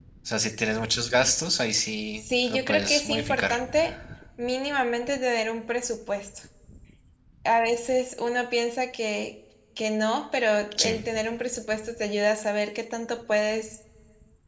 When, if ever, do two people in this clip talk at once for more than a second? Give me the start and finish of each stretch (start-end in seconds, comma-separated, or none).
2.2-3.6